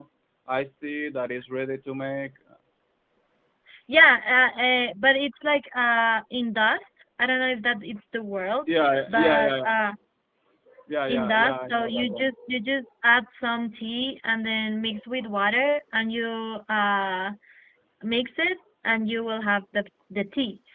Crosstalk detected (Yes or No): Yes